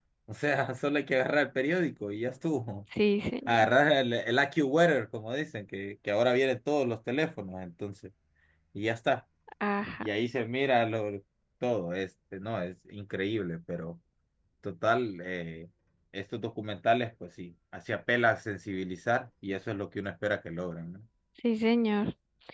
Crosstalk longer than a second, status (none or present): none